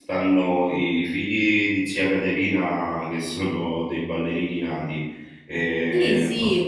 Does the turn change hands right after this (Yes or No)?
Yes